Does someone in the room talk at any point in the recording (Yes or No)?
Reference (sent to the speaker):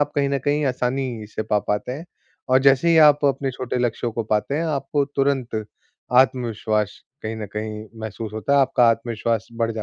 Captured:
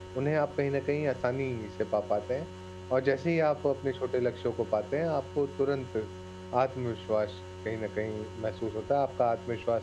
No